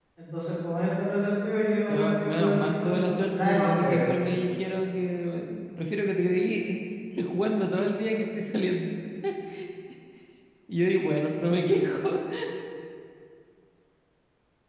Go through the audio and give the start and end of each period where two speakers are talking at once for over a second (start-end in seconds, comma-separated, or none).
1.9-4.3